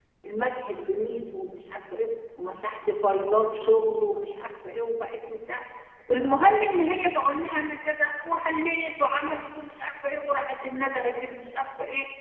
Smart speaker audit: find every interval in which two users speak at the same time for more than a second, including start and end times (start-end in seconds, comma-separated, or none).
none